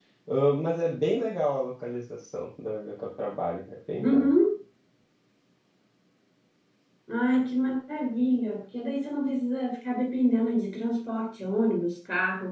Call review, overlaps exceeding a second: none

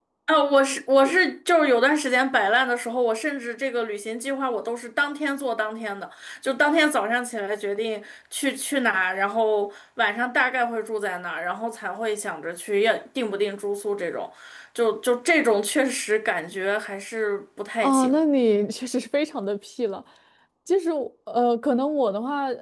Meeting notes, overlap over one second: none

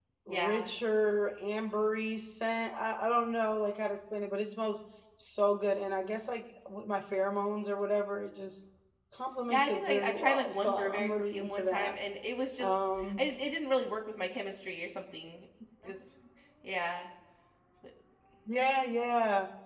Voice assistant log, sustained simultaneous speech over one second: present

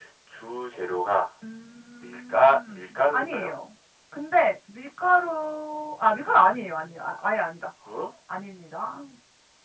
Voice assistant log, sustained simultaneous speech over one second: present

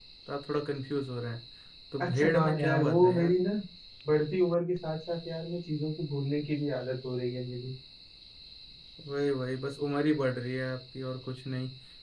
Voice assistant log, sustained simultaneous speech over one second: present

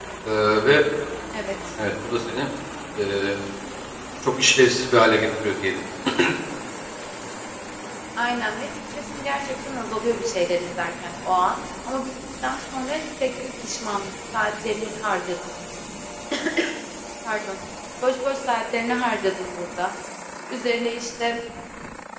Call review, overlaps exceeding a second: none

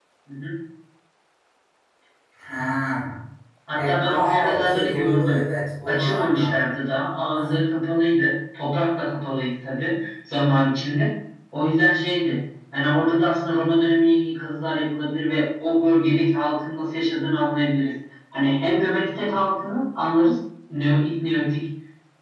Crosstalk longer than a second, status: present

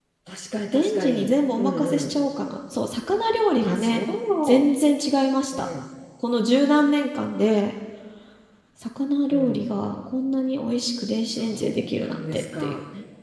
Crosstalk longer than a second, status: present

